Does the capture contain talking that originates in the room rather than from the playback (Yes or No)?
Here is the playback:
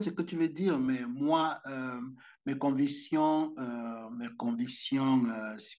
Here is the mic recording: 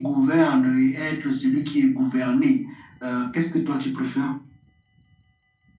Yes